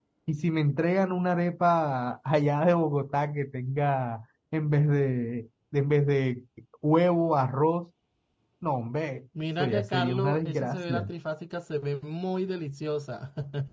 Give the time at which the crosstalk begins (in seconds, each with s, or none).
9.6 s